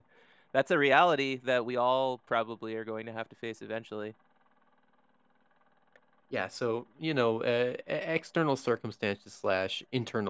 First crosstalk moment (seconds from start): none

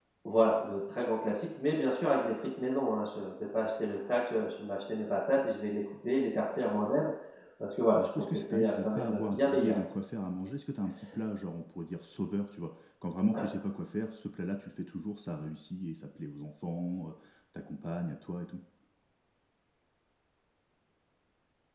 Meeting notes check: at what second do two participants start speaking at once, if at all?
7.9 s

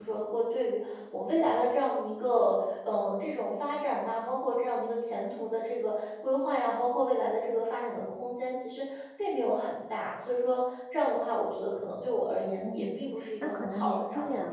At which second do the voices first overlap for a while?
12.6 s

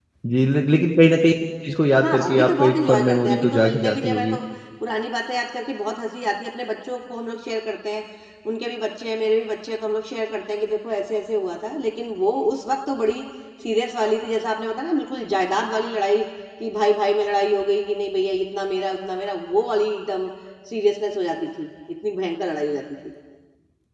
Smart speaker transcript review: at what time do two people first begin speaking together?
2.0 s

